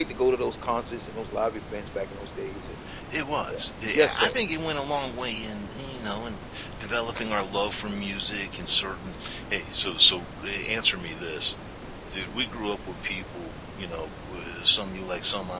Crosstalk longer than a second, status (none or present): none